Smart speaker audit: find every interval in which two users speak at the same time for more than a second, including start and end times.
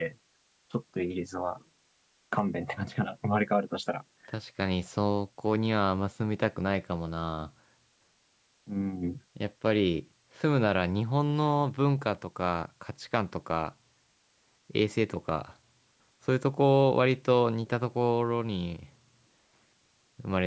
none

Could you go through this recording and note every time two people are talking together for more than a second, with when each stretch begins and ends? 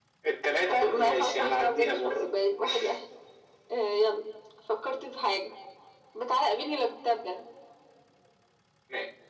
0.8-2.3

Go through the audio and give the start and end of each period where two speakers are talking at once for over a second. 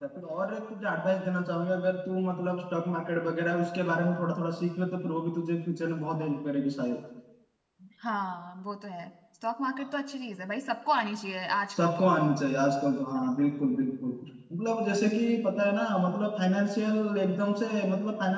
none

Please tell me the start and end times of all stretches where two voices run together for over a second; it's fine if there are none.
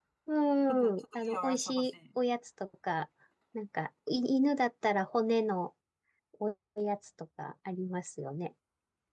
0.7-1.9

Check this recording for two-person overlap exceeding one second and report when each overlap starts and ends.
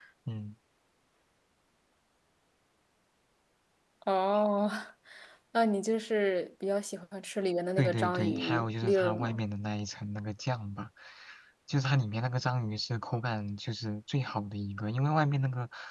7.8-9.4

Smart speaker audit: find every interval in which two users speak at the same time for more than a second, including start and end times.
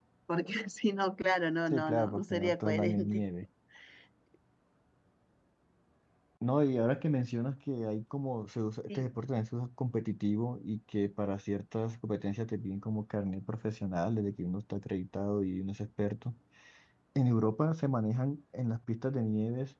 1.7-3.2

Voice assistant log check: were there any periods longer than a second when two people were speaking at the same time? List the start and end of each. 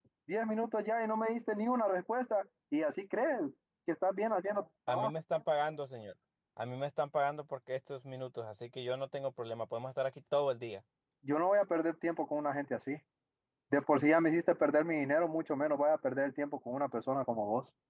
none

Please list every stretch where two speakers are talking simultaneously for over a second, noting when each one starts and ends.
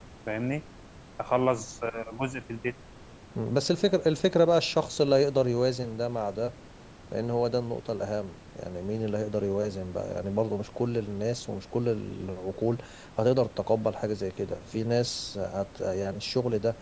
none

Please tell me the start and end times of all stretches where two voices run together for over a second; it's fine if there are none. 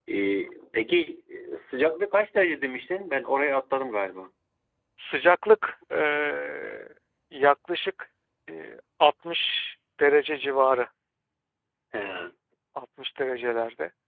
none

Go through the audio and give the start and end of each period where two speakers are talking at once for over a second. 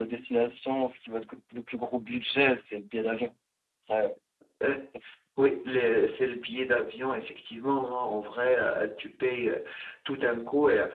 none

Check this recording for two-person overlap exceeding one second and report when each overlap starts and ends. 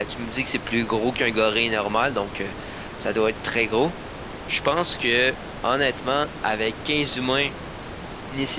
none

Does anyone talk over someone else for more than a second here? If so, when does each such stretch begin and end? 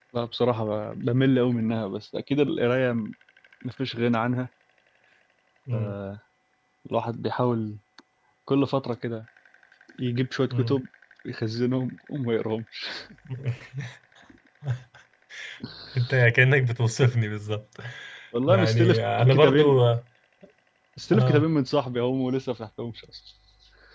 18.5-19.8

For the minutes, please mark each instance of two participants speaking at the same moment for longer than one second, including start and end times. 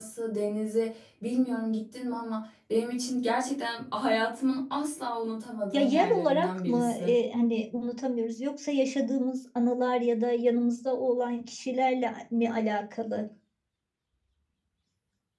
5.7-7.2

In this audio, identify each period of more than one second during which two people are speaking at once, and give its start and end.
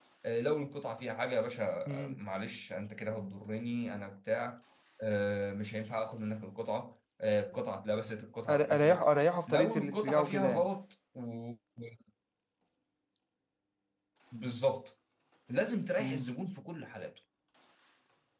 9.5-10.7

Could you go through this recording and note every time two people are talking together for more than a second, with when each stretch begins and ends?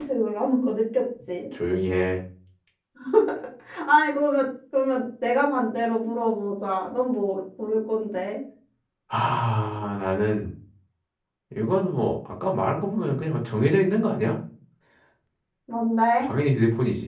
none

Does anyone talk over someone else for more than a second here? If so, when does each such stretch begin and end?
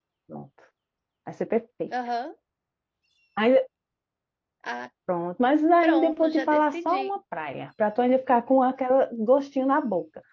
5.8-7.2

